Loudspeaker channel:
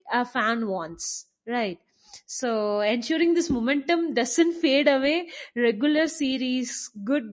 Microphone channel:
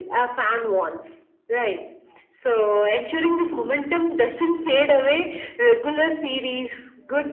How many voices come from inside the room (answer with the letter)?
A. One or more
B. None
B